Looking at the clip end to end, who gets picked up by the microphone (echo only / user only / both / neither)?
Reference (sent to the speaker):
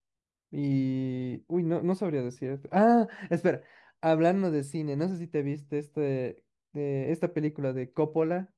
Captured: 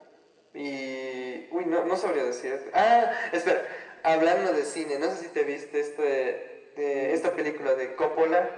both